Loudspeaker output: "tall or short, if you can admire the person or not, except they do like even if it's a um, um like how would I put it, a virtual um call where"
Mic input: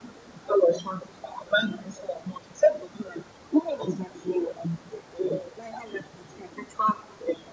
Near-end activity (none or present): none